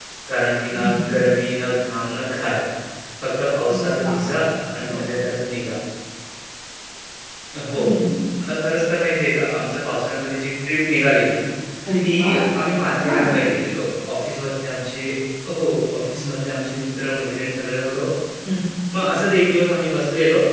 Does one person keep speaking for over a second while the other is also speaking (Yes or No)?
No